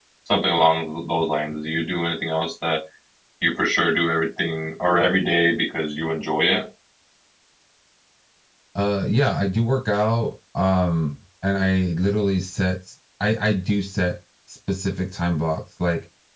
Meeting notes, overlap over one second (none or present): none